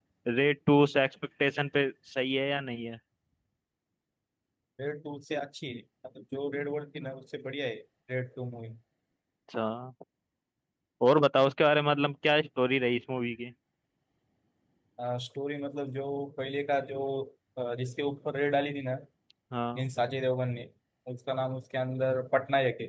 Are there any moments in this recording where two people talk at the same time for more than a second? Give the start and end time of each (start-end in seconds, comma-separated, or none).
none